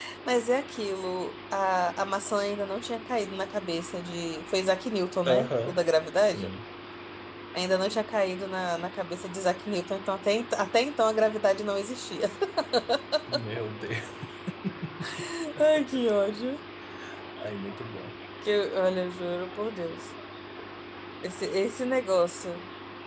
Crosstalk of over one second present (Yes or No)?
No